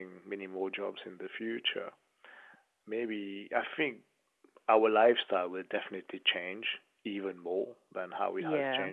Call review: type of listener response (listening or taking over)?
listening